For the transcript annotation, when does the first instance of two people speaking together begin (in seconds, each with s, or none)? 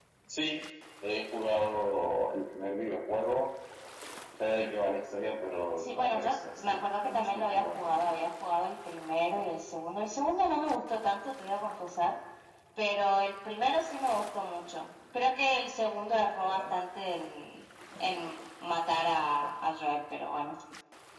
5.8 s